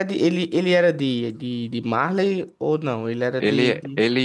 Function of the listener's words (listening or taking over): taking over